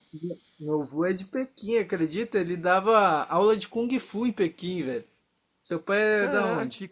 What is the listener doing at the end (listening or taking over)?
taking over